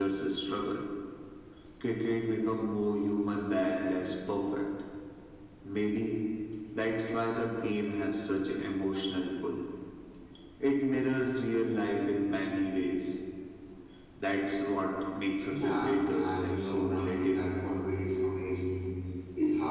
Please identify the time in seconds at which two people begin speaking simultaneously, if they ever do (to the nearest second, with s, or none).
15 s